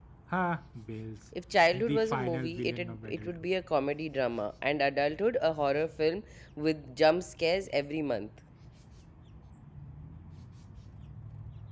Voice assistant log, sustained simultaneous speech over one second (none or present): present